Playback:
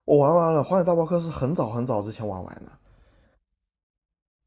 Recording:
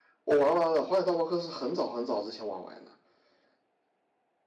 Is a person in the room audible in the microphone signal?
No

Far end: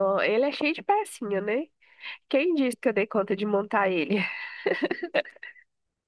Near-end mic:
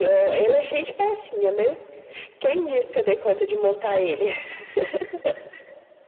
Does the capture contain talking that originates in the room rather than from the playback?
No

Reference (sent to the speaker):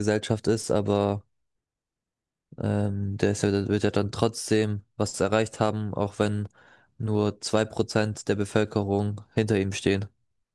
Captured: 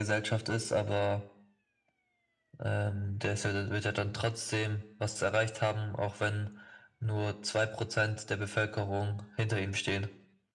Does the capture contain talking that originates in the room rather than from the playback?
No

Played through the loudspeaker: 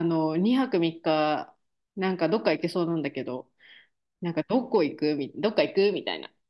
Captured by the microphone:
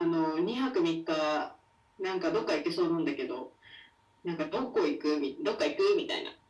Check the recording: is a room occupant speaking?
No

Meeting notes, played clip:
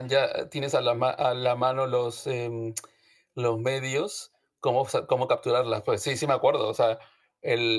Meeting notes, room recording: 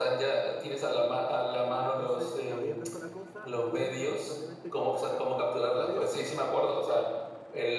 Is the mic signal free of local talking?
No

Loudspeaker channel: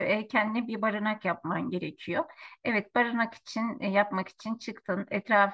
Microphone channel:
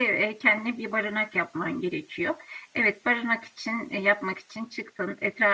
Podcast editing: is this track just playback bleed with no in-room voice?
Yes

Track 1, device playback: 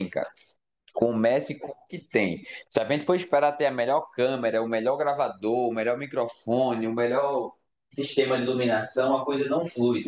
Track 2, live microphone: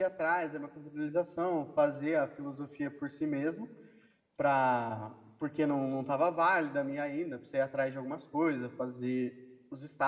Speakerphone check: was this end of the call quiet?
No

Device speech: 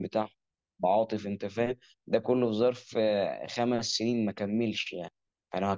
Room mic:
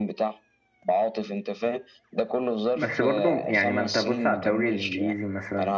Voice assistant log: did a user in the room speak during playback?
Yes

